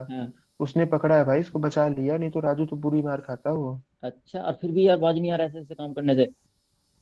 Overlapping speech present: No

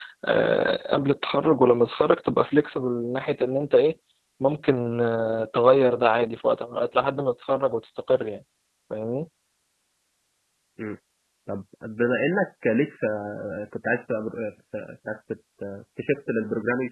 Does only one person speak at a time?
Yes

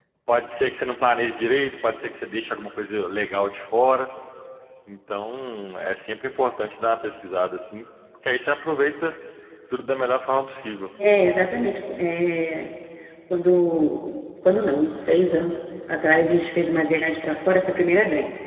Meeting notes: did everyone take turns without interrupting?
Yes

